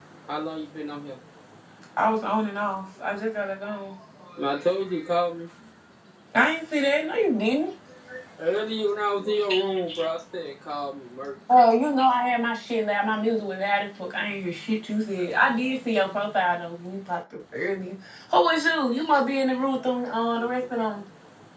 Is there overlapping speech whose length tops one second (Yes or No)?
No